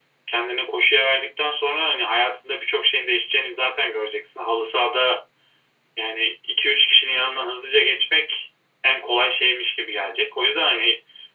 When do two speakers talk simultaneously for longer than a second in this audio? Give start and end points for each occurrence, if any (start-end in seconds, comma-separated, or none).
none